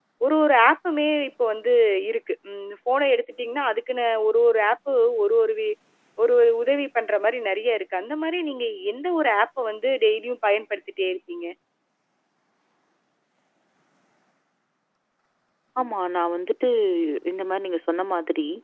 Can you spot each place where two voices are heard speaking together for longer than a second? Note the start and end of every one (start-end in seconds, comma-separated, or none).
none